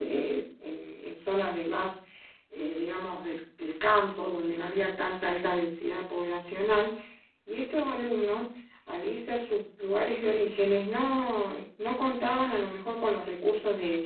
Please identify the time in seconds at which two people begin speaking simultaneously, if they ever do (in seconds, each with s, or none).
none